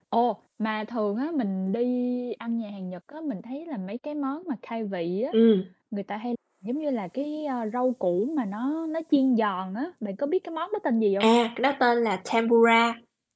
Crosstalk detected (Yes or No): No